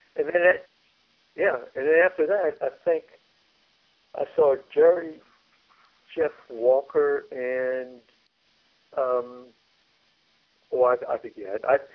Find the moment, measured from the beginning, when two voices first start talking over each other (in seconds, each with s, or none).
none